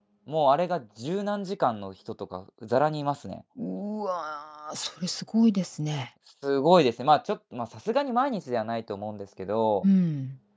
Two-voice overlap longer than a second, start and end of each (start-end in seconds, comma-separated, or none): none